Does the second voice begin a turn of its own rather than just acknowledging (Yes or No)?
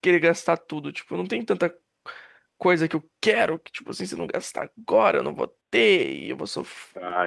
No